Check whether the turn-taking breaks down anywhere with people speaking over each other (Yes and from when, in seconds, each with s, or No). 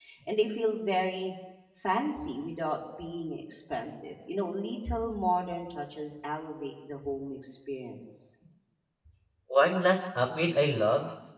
No